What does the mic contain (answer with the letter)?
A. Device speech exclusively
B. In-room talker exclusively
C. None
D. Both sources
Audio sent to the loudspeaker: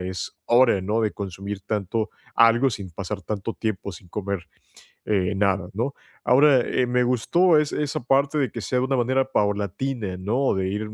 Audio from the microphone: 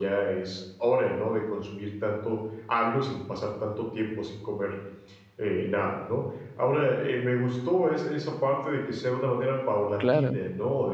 D